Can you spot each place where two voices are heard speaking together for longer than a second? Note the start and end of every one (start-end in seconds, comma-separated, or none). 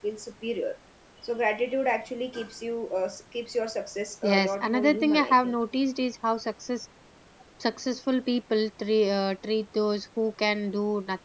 4.2-5.5